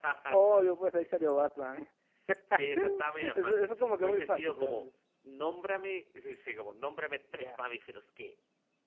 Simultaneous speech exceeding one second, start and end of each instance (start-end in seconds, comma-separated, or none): 3.2-4.9